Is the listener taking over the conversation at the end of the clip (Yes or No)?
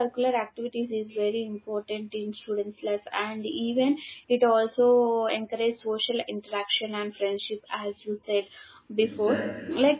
No